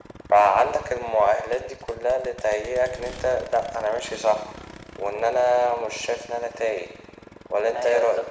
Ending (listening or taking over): taking over